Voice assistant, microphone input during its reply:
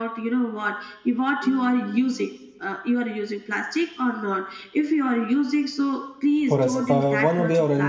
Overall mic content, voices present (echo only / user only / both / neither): both